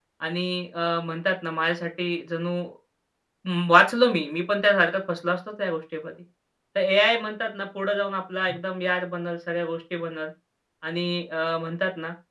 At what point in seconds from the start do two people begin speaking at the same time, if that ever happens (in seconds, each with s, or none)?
none